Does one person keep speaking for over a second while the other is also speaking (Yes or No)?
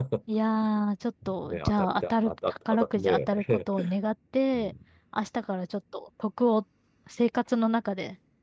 Yes